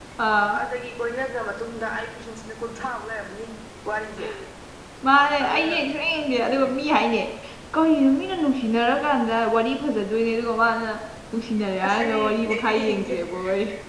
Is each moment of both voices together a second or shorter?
No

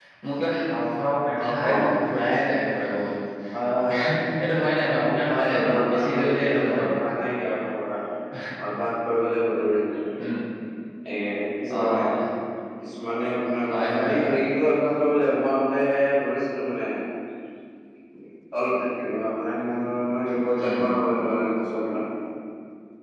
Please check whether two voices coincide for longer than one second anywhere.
Yes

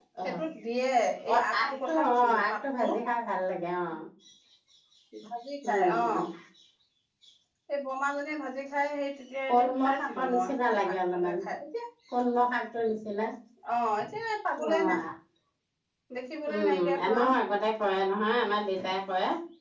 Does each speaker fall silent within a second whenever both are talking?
No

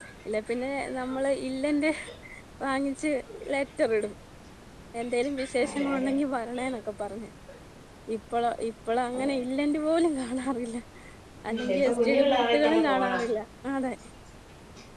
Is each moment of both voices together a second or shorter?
No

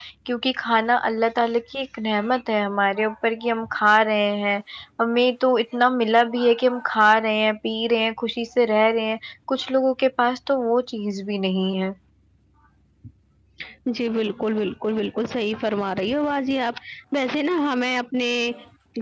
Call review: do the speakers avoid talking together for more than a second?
Yes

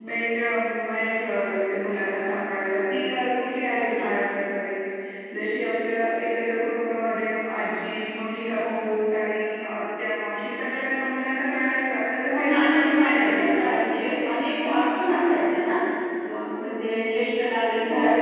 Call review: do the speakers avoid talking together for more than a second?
No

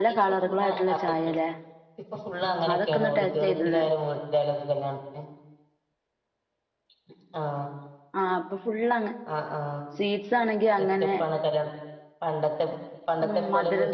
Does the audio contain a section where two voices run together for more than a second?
Yes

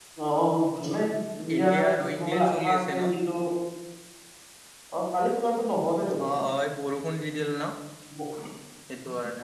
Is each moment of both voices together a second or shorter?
No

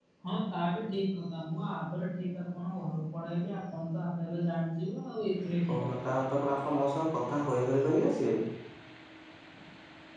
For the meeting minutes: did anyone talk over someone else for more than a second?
No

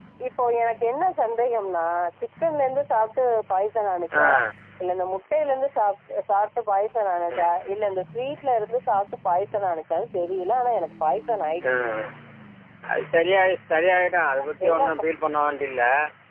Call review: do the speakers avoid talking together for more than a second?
Yes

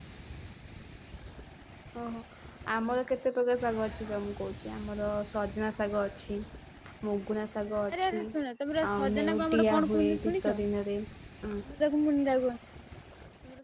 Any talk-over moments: Yes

